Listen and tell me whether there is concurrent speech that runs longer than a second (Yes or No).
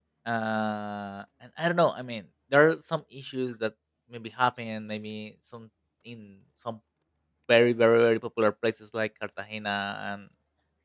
No